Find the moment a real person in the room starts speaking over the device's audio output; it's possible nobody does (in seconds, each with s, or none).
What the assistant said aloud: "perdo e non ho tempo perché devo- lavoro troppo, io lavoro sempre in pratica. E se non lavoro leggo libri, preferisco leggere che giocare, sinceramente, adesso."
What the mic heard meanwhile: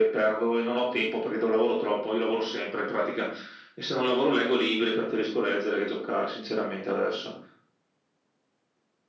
none